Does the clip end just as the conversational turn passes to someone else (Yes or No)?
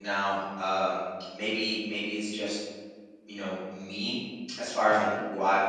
No